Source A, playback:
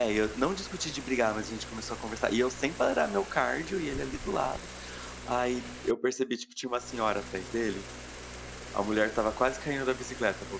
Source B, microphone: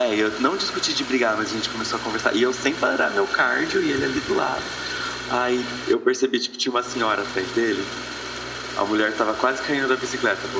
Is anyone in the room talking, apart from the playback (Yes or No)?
No